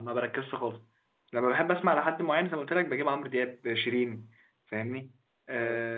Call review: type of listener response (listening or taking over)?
listening